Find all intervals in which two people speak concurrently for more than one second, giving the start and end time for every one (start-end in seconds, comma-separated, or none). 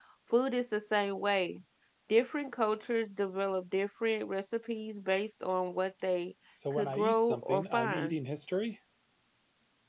6.7-8.2